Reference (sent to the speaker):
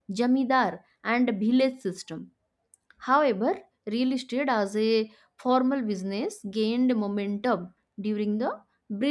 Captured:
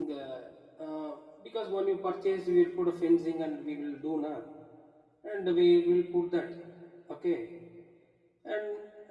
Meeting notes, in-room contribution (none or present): present